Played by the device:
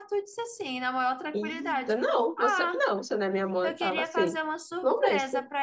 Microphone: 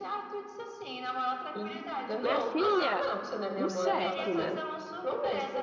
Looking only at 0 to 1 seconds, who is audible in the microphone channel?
echo only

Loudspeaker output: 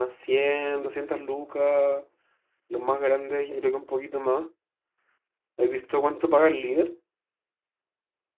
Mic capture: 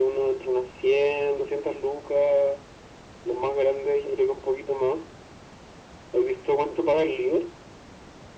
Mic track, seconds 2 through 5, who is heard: echo only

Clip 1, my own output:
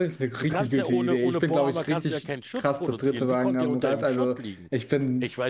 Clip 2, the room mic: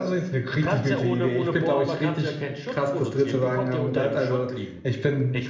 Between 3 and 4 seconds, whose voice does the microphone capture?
echo only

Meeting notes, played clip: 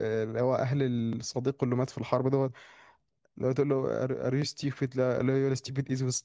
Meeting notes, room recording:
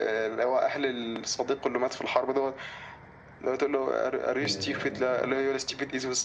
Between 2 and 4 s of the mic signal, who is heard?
echo only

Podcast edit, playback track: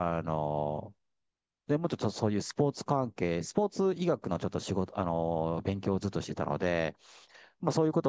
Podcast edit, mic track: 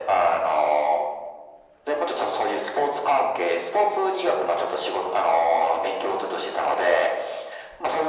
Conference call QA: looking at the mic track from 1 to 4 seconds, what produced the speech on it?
echo only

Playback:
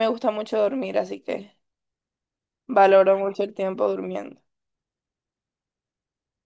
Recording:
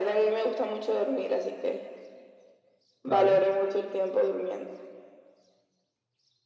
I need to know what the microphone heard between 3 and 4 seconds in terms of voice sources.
both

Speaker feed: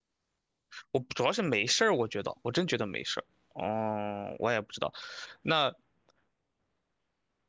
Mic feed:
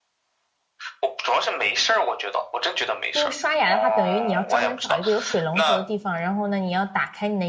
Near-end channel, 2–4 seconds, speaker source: both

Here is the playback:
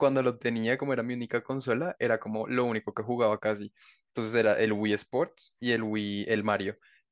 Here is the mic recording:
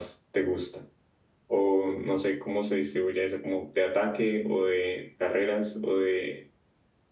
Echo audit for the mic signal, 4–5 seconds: user only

